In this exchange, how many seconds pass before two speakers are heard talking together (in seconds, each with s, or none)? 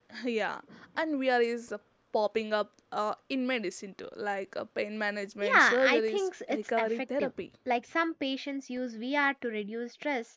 5.4 s